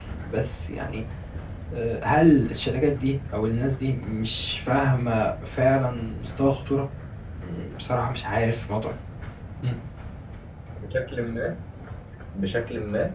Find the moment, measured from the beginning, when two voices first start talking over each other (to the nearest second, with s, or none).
none